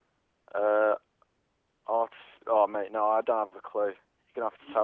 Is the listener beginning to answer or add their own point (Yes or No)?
Yes